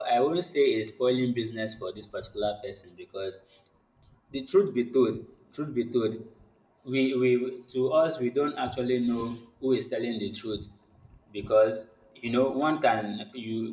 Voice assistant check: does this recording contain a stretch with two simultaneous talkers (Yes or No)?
No